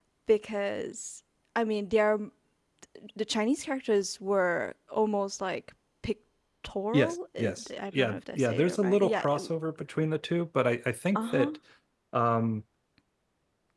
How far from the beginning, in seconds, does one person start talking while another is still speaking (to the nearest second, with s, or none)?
7 s